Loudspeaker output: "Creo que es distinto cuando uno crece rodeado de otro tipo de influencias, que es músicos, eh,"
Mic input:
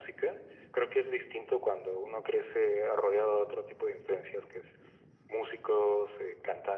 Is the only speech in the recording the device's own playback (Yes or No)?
Yes